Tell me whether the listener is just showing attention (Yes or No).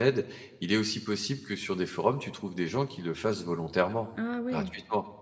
No